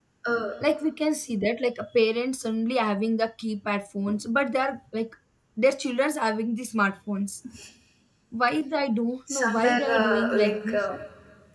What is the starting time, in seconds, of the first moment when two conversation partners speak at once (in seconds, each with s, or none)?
9.3 s